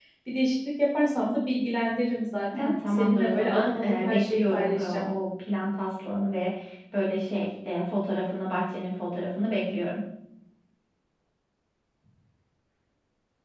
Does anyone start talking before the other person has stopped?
Yes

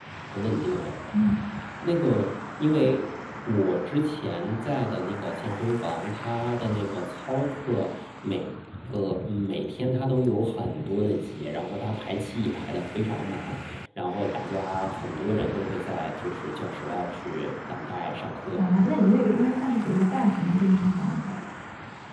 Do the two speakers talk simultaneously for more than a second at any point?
No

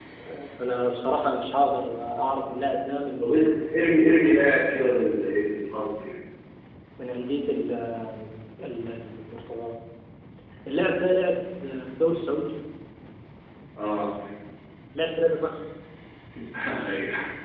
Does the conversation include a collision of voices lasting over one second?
No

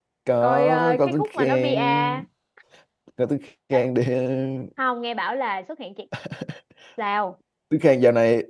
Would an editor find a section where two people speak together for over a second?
Yes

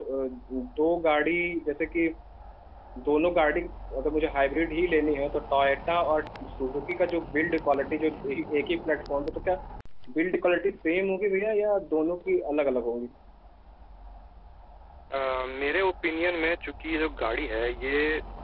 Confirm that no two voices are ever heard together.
Yes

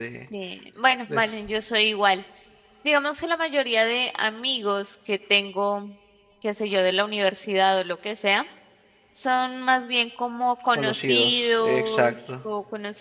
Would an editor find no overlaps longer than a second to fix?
No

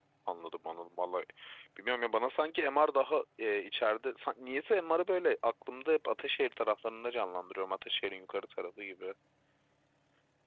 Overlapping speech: No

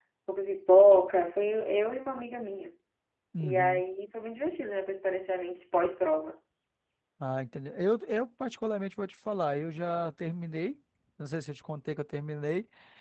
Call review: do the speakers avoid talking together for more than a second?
Yes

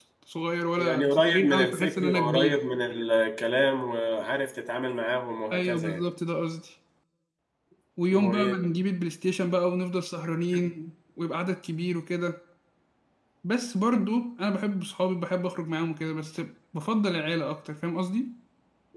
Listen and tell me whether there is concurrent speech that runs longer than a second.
Yes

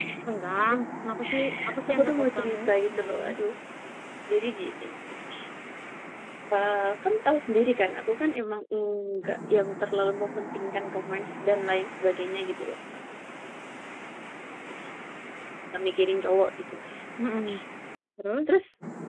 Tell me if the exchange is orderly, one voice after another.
No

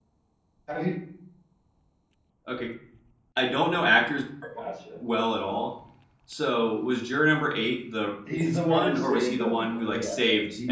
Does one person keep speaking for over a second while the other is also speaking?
Yes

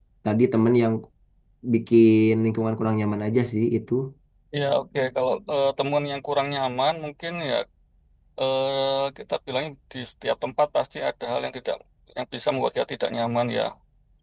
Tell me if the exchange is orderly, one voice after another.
Yes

